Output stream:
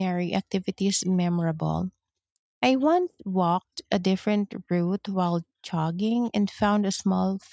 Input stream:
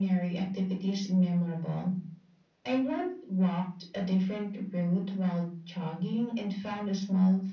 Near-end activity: none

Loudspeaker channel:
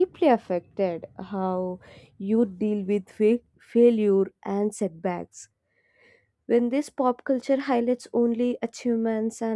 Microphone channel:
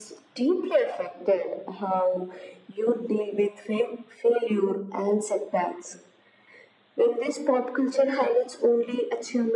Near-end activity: none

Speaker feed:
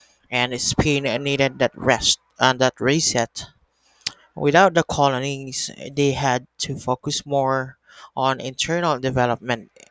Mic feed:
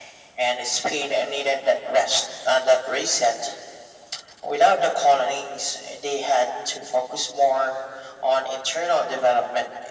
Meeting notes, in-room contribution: none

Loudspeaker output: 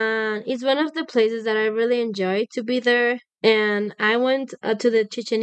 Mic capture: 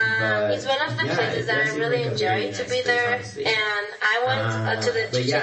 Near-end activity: present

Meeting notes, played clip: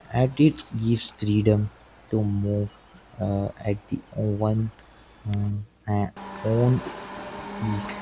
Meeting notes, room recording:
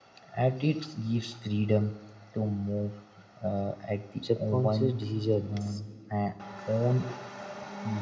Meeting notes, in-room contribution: present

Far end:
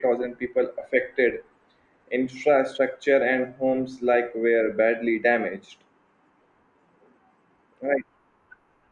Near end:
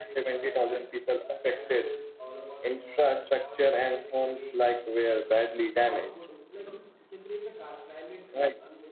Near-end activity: present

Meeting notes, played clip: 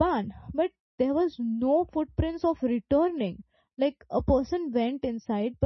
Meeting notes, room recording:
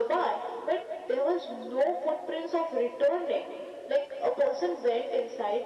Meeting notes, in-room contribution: none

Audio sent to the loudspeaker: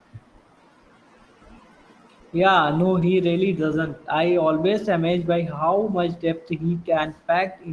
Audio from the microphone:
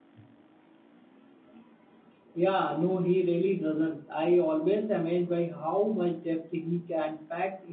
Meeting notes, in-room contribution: none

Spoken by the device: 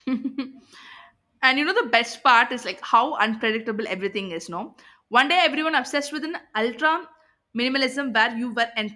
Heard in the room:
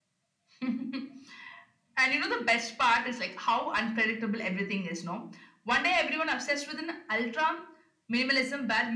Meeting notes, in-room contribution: none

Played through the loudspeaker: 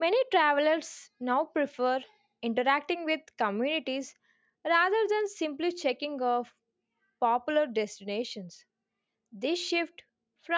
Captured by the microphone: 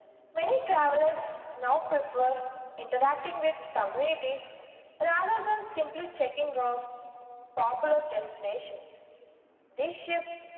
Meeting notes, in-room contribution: none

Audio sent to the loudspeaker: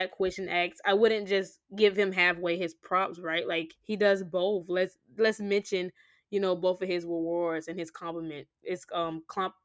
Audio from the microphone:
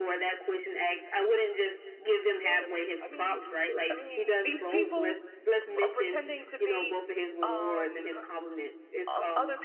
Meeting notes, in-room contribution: present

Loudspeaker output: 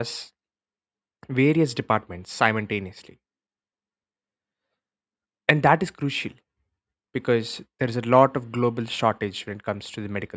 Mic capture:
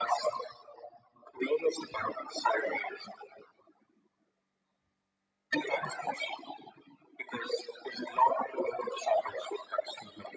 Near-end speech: none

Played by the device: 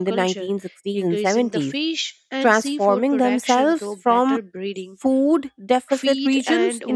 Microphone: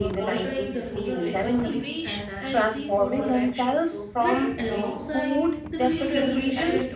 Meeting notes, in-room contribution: present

